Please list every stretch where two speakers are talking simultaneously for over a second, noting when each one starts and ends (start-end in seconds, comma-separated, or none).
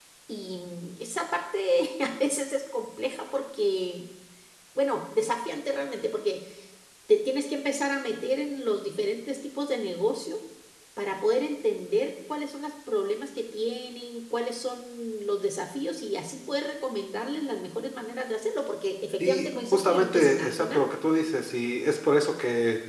19.2-20.9